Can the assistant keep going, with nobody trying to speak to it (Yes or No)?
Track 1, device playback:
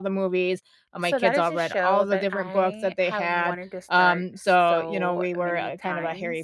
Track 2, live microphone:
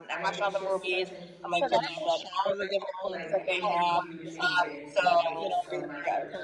No